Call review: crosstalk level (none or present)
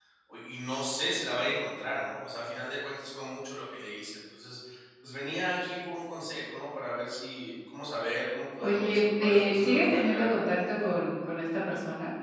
present